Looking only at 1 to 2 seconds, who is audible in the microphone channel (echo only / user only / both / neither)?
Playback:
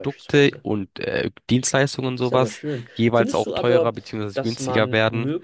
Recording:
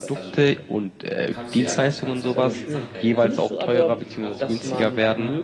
both